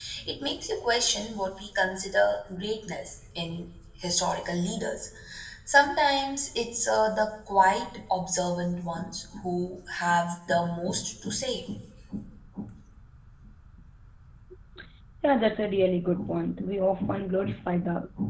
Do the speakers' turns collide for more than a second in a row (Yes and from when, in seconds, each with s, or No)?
No